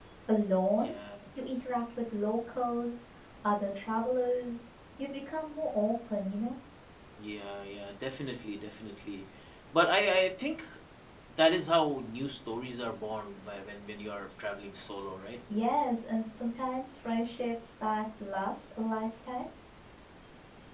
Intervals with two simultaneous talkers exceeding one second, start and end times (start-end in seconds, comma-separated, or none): none